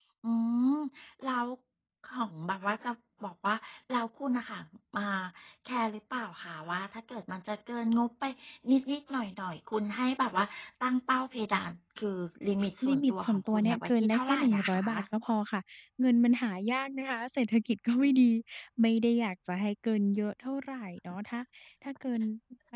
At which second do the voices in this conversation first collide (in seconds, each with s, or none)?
12.8 s